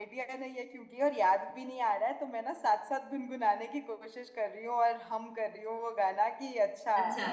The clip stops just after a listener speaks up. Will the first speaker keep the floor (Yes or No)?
Yes